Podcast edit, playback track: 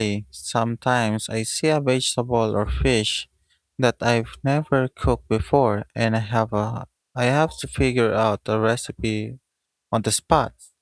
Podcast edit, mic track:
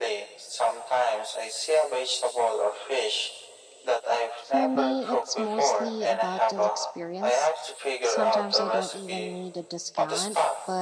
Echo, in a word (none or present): present